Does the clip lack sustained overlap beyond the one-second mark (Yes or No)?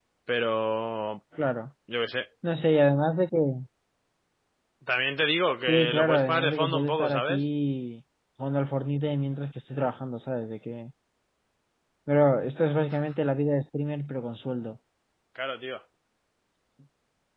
No